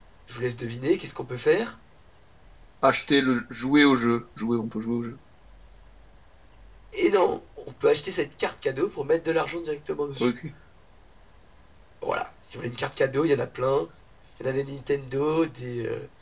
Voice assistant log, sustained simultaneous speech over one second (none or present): none